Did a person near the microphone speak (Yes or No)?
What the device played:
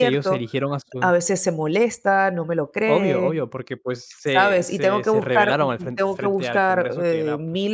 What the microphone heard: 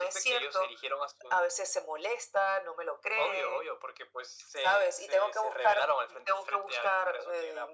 No